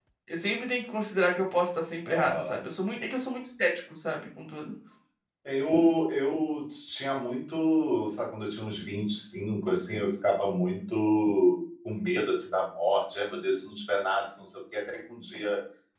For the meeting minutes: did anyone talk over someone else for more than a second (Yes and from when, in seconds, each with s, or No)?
No